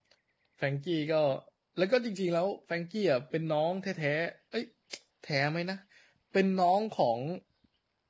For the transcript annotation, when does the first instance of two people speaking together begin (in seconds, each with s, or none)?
none